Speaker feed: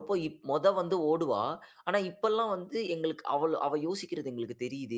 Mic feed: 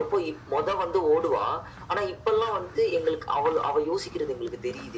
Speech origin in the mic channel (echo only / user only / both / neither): echo only